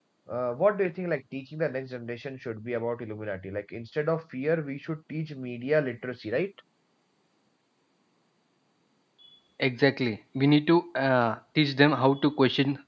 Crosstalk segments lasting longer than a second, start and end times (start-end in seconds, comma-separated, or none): none